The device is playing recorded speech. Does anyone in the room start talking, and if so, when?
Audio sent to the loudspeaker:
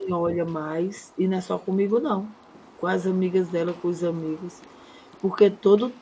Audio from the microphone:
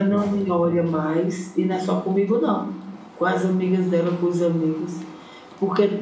none

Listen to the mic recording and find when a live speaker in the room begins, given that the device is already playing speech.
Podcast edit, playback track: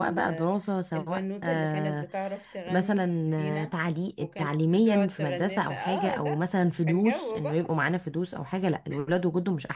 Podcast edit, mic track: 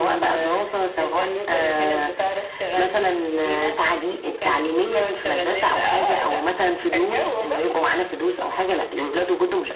none

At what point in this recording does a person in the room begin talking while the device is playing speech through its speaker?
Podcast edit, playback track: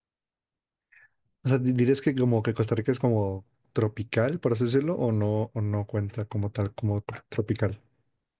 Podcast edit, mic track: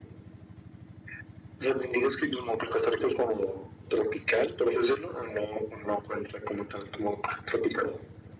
none

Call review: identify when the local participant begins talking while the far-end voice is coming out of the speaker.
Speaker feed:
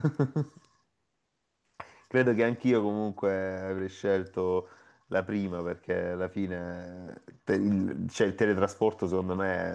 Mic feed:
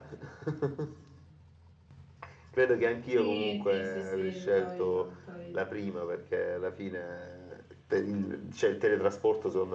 3.1 s

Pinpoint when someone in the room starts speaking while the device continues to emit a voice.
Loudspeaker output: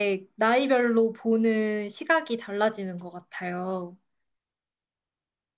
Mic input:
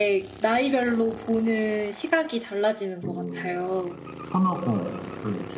3.0 s

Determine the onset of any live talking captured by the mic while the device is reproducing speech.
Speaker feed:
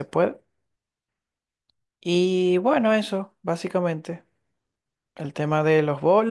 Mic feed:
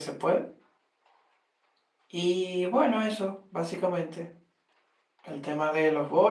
none

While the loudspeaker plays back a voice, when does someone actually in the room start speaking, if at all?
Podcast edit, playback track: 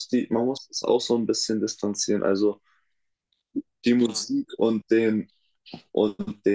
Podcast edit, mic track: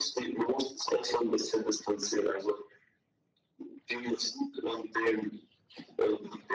none

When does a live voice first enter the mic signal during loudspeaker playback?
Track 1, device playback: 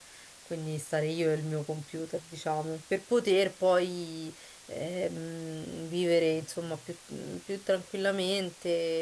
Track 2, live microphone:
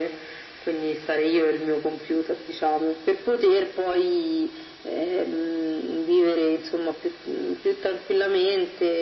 none

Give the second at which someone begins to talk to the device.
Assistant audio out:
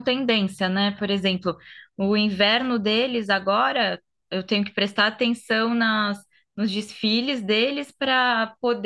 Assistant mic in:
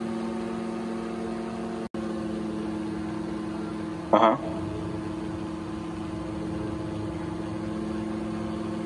4.1 s

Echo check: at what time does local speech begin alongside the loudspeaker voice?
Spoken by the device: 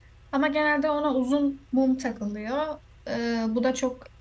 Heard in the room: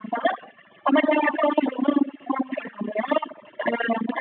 none

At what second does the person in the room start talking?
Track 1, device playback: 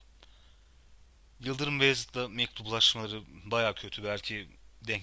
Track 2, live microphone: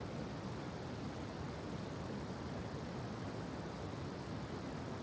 none

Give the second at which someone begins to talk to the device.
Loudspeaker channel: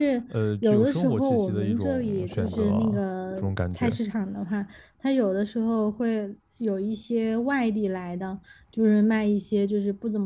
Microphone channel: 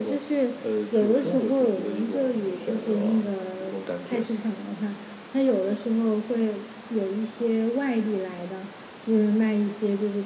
none

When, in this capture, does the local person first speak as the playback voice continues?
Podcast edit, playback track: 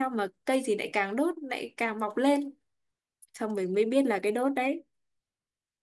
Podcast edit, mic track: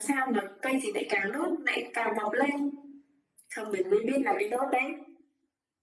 none

